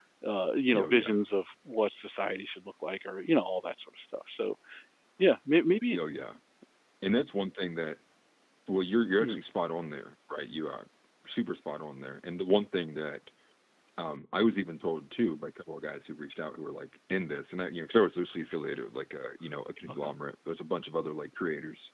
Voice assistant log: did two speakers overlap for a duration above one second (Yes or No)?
No